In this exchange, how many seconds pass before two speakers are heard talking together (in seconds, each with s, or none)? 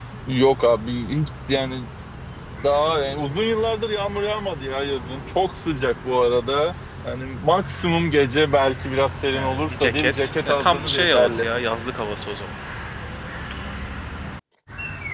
9.3 s